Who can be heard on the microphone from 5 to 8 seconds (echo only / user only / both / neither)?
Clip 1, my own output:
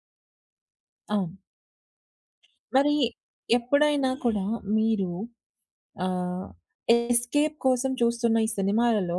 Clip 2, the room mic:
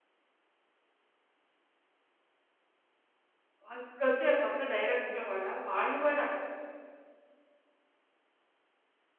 user only